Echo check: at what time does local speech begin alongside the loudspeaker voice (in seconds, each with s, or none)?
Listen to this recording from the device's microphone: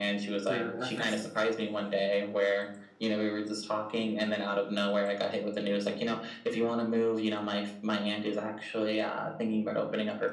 0.4 s